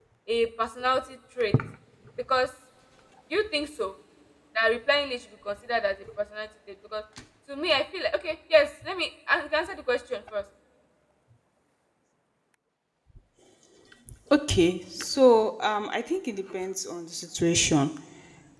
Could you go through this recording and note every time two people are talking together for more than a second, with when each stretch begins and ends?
none

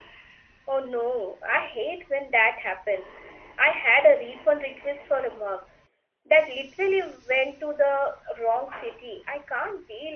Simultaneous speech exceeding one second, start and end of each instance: none

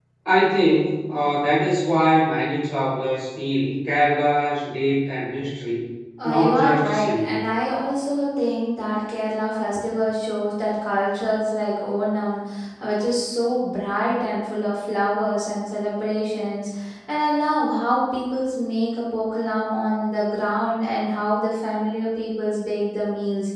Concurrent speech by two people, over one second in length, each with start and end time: 6.2-7.5

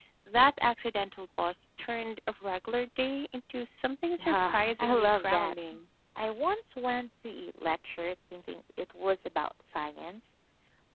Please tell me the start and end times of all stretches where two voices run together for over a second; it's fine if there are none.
4.2-5.5

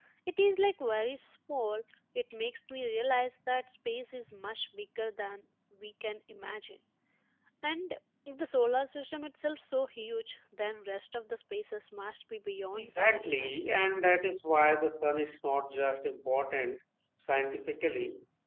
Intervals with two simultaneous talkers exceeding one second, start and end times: 12.7-14.2

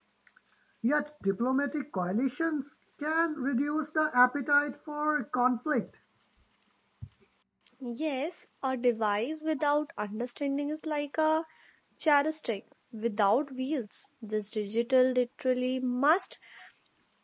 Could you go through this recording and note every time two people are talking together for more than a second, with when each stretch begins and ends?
none

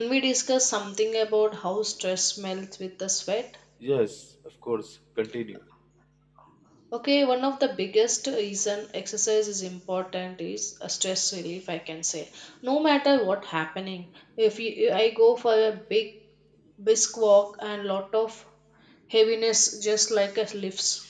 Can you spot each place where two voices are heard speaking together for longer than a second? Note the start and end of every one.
none

